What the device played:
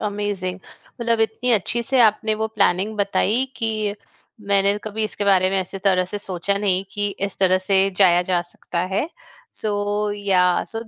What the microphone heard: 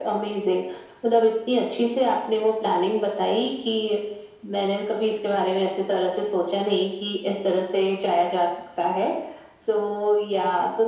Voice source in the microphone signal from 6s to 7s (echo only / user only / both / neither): echo only